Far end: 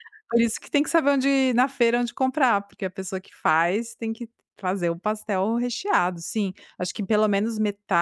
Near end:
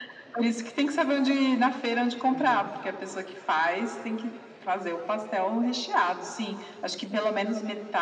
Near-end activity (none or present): present